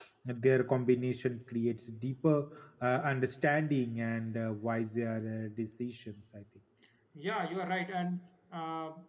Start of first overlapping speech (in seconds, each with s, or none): none